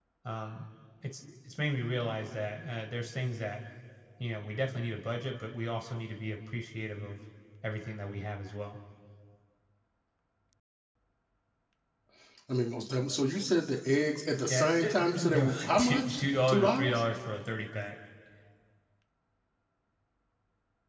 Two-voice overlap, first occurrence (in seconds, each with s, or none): 14.5 s